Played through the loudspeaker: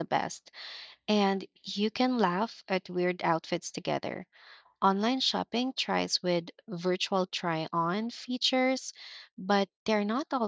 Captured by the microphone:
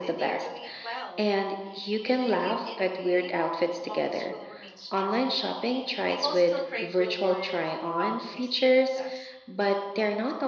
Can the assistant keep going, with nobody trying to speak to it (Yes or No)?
No